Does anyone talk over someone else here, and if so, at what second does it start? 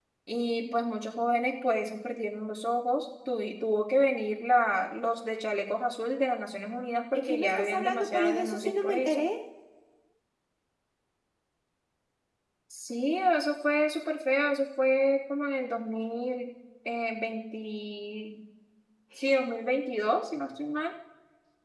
7.1 s

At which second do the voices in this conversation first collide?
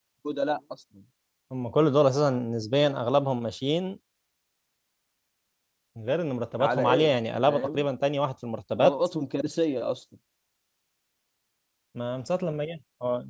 6.6 s

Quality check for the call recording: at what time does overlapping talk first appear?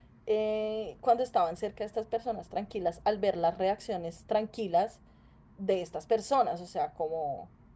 none

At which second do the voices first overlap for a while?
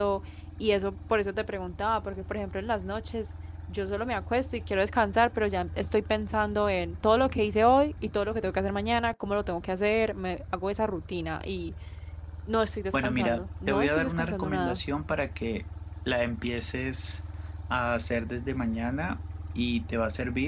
12.9 s

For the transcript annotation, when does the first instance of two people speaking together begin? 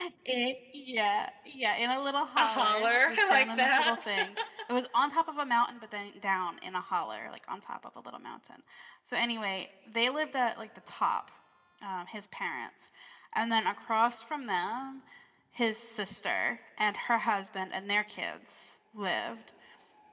2.4 s

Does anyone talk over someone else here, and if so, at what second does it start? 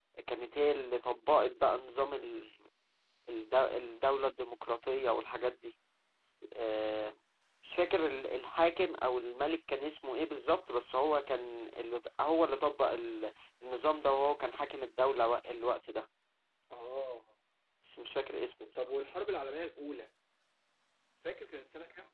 none

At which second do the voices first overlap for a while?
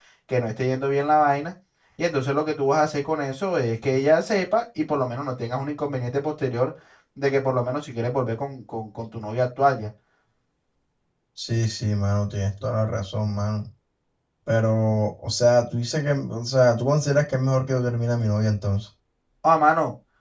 none

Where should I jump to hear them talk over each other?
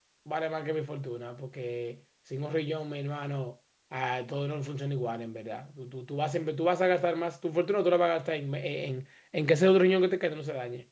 none

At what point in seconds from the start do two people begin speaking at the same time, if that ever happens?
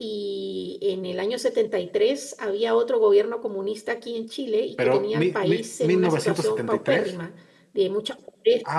4.8 s

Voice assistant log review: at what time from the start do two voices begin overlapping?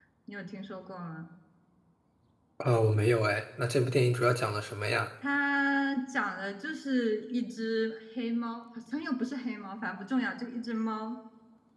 none

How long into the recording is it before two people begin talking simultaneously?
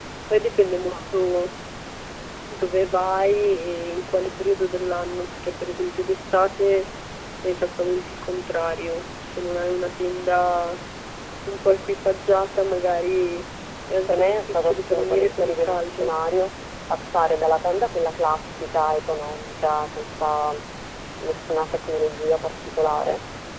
14.1 s

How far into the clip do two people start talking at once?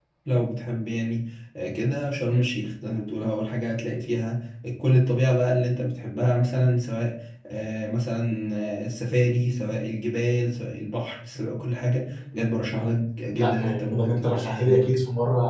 13.4 s

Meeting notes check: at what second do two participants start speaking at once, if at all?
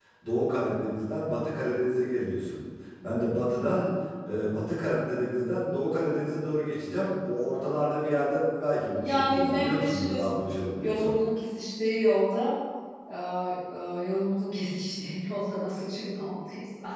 8.9 s

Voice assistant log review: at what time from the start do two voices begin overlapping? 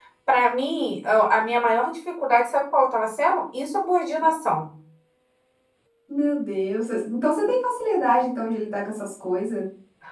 none

